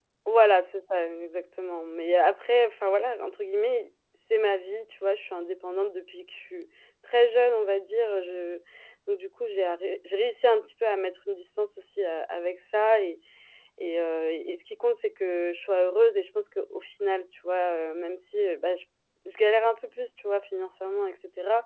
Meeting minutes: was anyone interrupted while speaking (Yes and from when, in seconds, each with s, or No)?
No